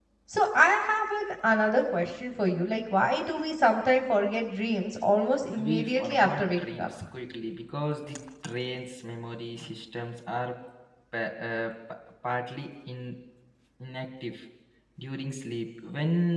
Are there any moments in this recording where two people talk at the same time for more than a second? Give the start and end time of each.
5.7-6.9

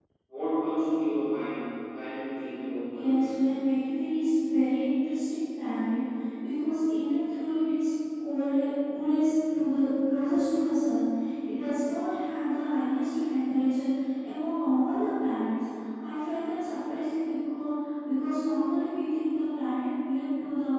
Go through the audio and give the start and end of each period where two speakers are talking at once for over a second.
none

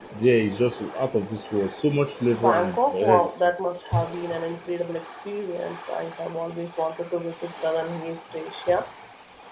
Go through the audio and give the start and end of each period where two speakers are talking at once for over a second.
2.3-3.6

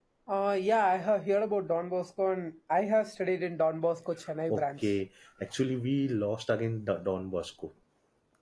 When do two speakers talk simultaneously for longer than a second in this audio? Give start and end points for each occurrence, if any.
none

